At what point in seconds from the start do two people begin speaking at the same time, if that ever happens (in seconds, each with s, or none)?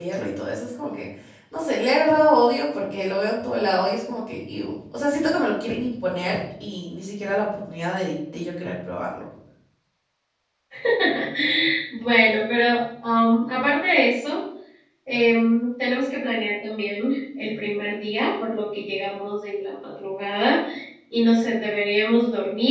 none